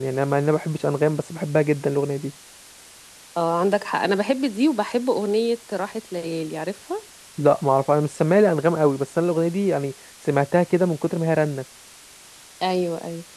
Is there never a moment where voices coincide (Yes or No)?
Yes